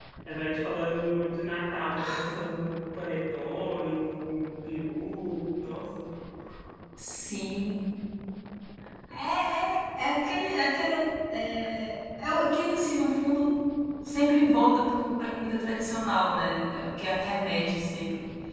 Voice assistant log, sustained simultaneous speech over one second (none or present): none